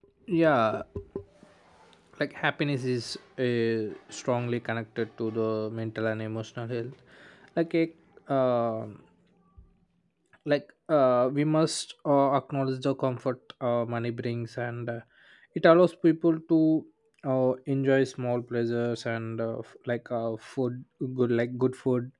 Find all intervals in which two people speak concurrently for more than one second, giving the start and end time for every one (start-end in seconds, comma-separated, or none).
none